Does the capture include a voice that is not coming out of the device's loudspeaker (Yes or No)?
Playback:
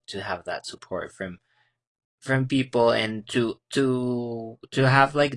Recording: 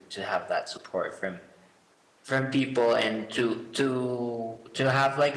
No